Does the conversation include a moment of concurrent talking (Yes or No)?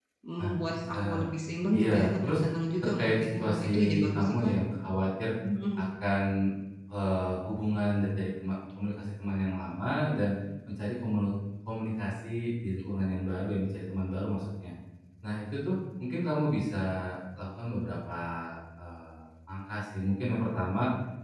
Yes